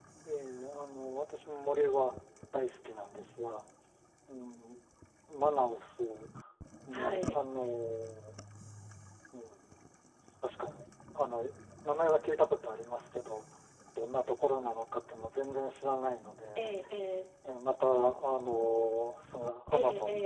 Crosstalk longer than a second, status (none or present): none